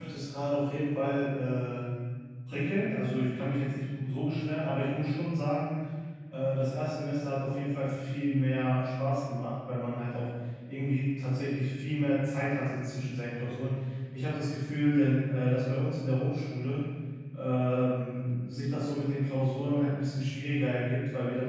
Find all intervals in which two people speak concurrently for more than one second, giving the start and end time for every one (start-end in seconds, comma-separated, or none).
none